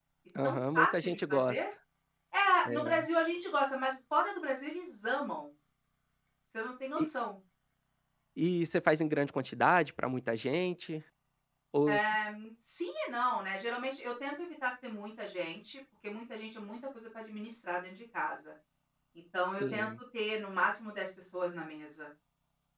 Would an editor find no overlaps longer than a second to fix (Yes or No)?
No